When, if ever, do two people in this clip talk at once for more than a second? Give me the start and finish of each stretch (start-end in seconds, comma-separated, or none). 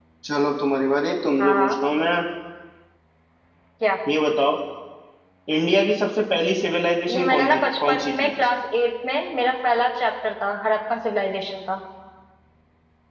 7.1-8.3